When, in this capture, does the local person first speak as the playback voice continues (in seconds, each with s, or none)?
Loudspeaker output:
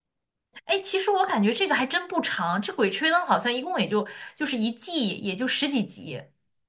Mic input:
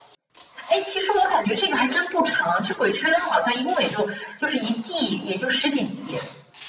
none